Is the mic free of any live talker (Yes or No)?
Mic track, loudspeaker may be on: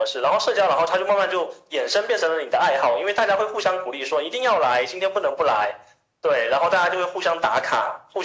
Yes